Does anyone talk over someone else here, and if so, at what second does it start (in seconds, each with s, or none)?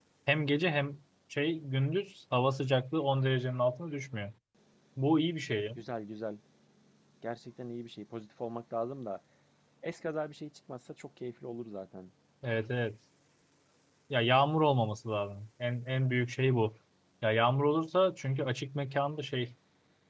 none